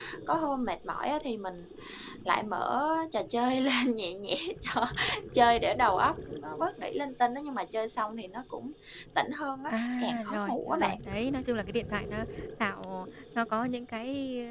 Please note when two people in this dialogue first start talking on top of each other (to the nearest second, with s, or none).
10 s